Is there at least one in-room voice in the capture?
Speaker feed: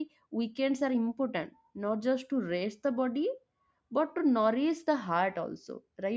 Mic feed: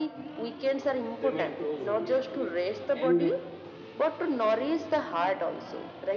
Yes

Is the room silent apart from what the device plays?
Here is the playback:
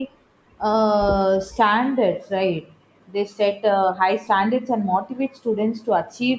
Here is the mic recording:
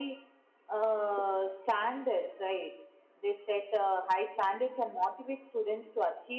Yes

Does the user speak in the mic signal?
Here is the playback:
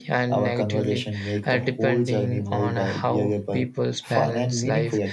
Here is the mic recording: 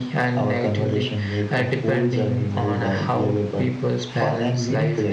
No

